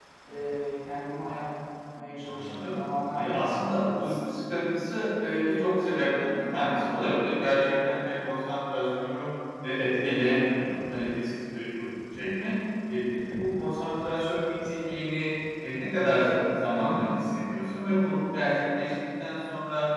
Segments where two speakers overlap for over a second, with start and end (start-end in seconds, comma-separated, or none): 3.1-4.4